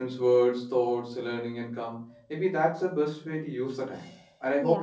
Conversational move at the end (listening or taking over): listening